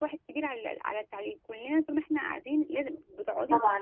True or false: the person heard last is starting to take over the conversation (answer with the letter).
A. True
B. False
A